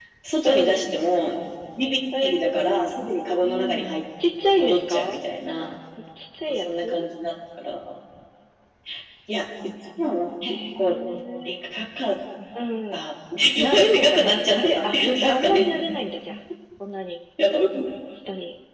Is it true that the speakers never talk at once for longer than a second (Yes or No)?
No